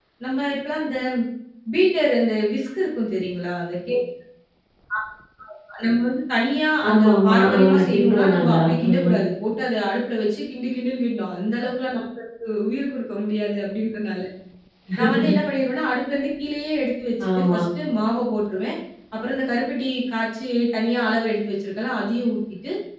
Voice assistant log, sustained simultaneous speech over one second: present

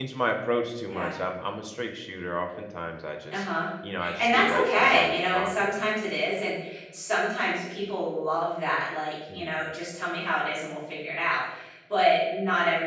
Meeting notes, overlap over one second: present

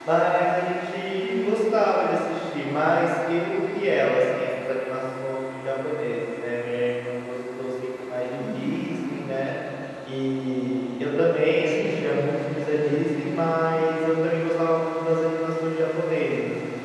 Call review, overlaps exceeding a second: none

